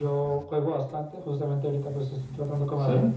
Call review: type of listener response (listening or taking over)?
listening